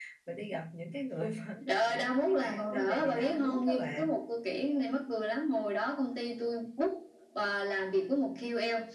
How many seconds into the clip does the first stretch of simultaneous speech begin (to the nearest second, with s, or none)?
2 s